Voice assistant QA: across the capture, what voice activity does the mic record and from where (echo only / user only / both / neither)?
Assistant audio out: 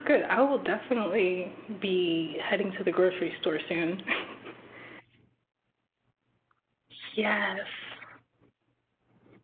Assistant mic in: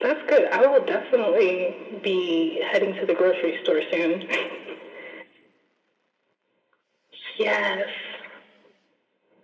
echo only